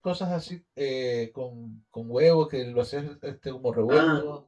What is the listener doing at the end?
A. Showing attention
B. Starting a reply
B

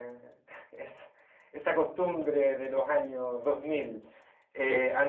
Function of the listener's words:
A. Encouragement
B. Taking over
A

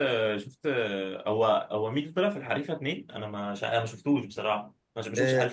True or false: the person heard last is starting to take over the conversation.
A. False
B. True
B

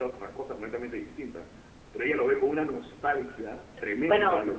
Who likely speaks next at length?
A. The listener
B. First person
A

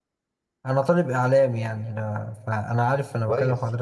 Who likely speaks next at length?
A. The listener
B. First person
A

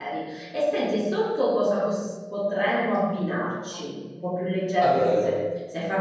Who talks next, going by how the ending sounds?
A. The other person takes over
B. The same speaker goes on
B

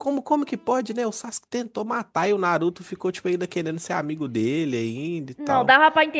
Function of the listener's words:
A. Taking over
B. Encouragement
A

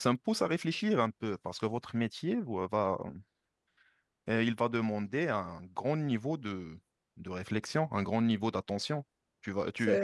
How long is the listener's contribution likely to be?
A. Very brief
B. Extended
A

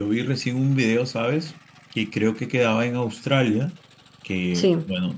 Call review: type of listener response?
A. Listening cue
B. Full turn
A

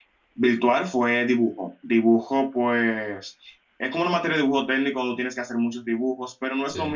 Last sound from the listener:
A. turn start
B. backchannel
B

